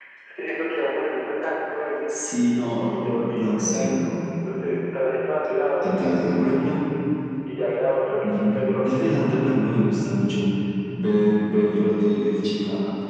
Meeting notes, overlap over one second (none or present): present